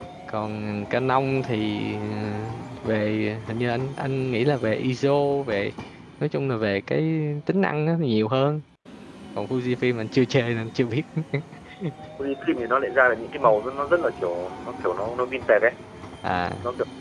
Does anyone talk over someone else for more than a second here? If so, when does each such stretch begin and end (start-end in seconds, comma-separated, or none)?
none